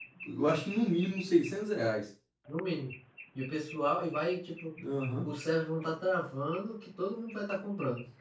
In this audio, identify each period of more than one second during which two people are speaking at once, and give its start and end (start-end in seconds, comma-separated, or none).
none